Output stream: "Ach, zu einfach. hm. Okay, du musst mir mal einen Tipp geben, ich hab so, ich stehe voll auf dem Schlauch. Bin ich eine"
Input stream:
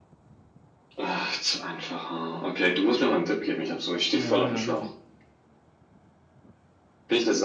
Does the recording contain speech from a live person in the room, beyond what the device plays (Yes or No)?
Yes